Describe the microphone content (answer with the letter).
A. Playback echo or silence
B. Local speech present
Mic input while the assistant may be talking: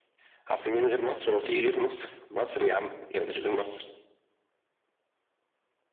A